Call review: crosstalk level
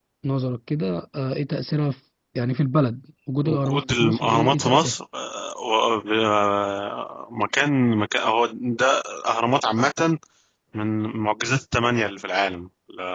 present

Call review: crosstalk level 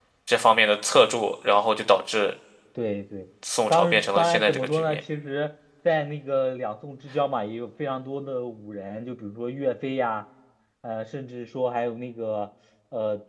present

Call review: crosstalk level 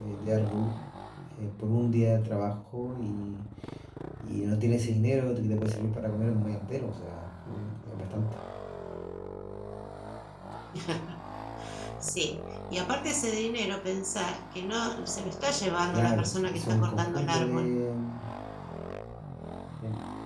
present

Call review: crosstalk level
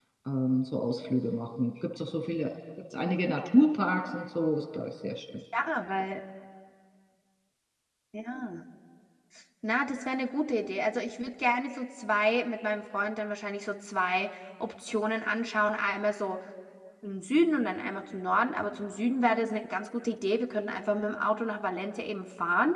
none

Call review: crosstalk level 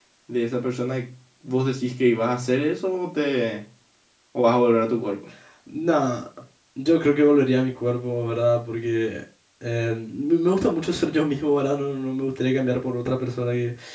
none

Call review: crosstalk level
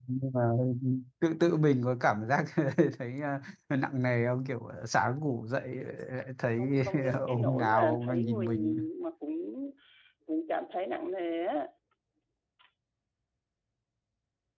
present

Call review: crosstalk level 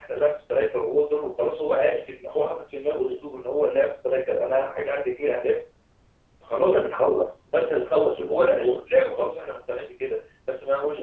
present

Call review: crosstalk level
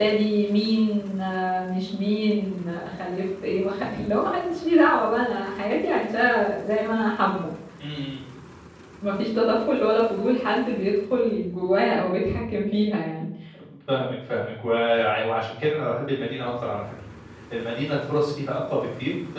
none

